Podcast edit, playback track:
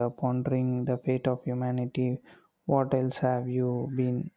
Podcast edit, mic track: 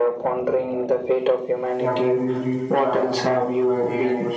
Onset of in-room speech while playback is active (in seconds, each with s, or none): 1.8 s